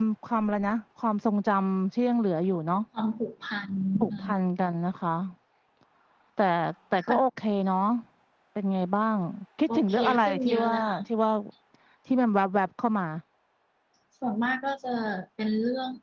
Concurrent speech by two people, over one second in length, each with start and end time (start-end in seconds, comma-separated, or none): 9.7-11.0